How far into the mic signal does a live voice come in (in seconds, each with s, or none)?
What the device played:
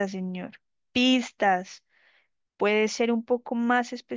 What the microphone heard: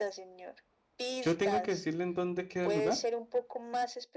1.2 s